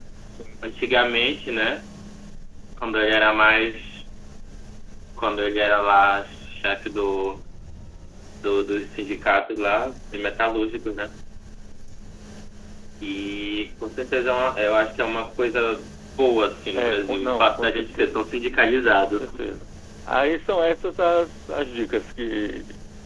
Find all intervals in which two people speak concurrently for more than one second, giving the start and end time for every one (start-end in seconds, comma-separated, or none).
16.7-18.2